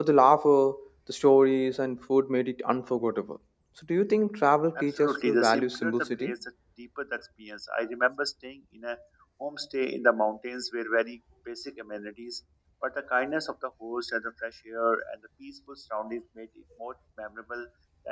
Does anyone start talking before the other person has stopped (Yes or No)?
Yes